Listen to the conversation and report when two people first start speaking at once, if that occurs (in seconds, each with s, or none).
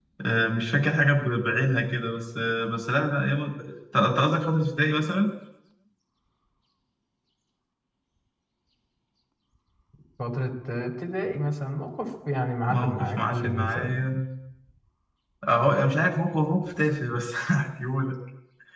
12.7 s